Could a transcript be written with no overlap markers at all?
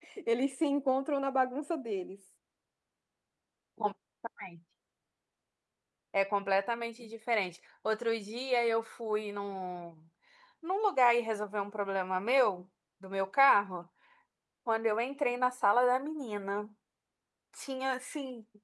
Yes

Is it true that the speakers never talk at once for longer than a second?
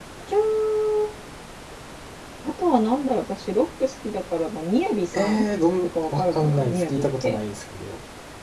No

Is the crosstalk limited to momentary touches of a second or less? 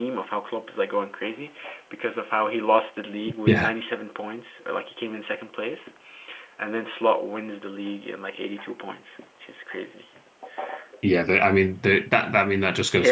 Yes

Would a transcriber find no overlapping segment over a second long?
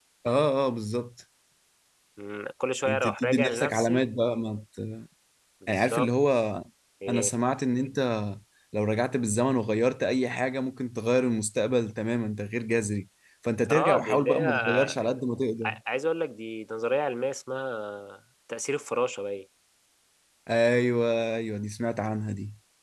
No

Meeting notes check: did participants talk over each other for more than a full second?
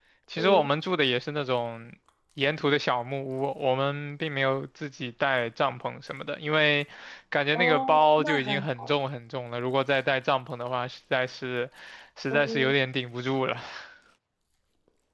Yes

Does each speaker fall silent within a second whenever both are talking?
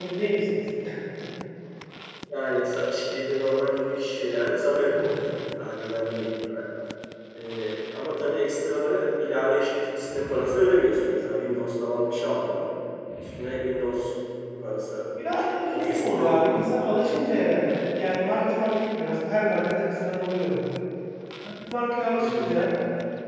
No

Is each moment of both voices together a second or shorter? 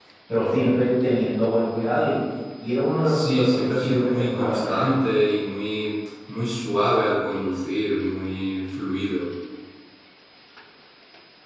No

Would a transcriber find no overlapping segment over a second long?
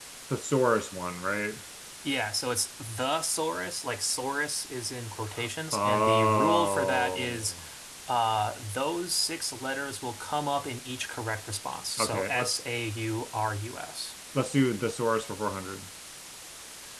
No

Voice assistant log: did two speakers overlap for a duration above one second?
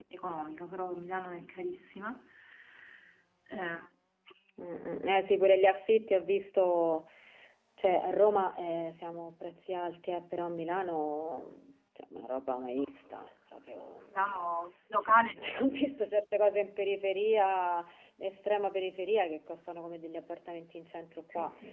No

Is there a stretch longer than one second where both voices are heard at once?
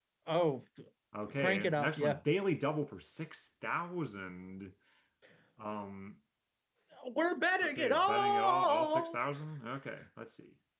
Yes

